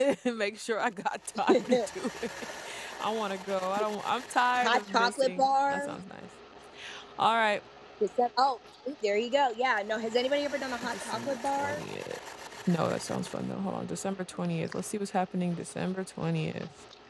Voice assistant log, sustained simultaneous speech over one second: present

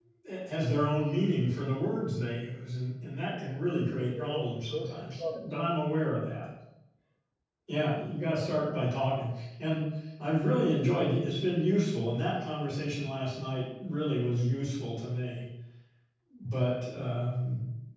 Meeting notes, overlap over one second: present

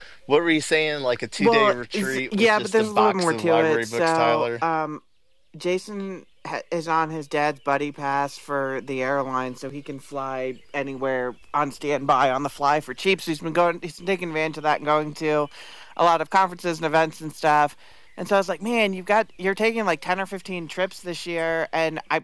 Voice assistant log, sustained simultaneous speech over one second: present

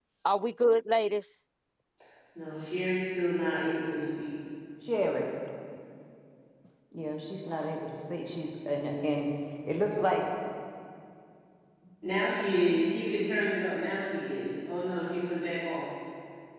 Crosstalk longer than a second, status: none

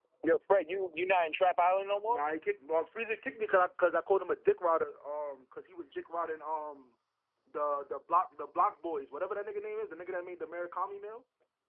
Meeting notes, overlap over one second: none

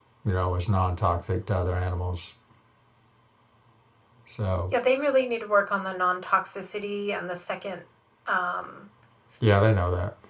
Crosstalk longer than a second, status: none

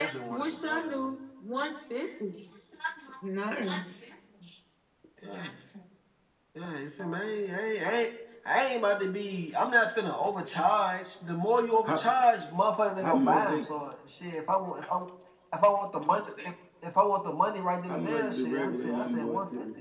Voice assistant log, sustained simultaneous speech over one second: present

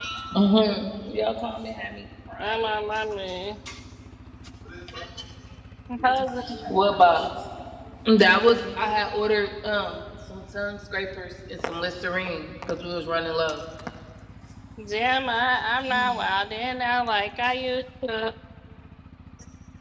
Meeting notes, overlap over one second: none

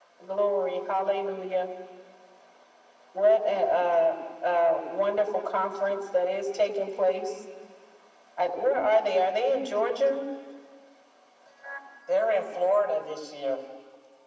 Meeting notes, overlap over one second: none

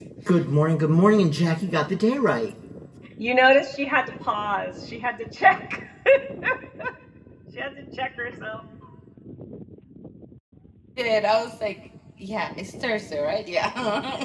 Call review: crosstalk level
none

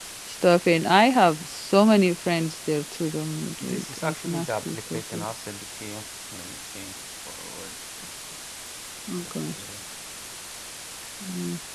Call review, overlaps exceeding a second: present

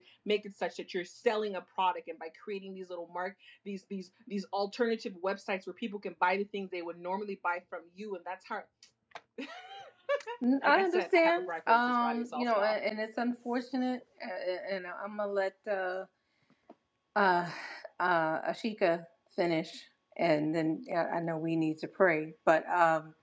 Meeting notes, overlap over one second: present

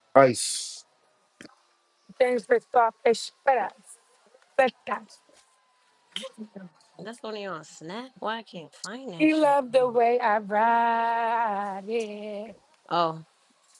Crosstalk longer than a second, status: none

